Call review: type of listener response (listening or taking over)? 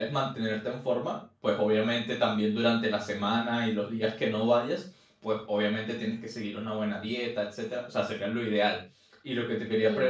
listening